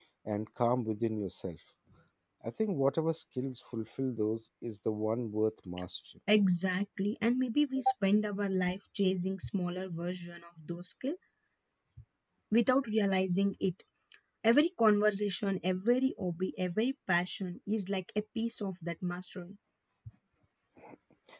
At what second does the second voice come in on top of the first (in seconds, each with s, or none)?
none